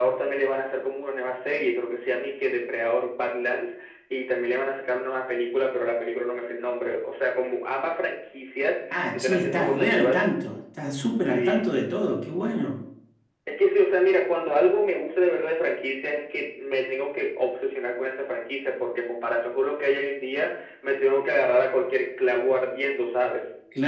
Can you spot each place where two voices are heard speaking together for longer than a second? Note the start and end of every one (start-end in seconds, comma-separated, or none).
9.0-10.3